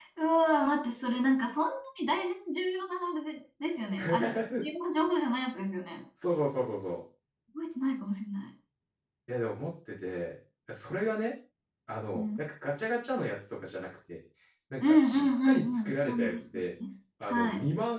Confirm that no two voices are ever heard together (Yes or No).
No